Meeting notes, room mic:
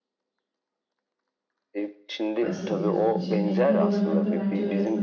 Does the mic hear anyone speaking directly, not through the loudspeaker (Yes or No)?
Yes